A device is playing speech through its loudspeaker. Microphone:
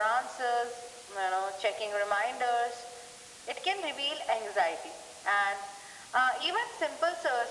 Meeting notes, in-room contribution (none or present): none